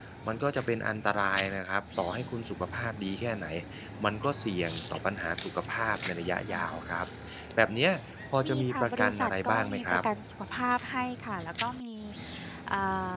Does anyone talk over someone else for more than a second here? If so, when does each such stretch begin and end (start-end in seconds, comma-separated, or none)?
8.4-10.0